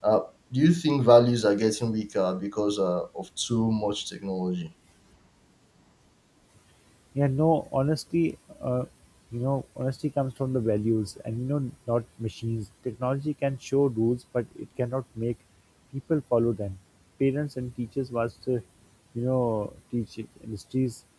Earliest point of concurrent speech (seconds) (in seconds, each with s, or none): none